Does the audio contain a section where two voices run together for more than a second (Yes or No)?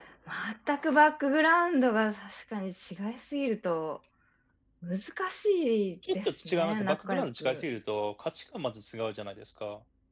Yes